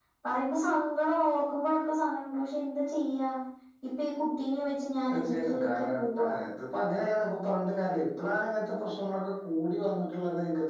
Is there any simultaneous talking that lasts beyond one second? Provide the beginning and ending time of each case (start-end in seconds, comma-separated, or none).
5.1-6.3